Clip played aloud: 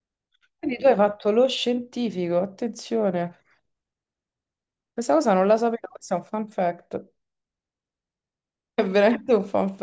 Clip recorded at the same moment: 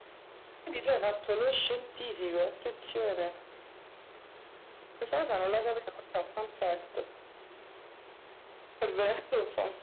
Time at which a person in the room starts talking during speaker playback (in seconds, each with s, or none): none